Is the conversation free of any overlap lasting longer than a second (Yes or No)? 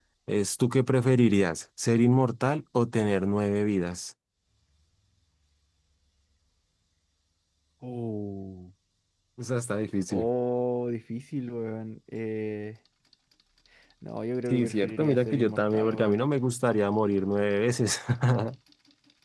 No